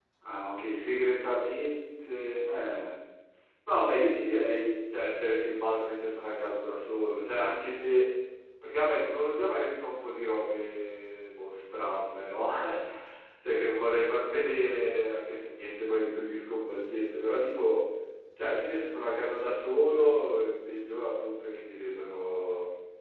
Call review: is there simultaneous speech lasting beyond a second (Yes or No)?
No